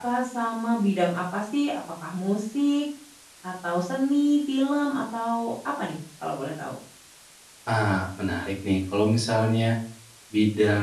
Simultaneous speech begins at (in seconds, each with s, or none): none